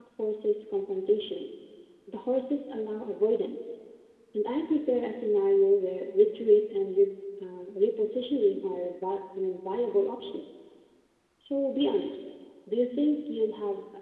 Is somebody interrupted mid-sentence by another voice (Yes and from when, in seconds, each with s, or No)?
No